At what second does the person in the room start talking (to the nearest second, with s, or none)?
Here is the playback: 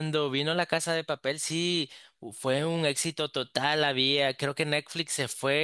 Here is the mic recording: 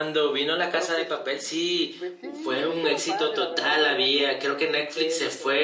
1 s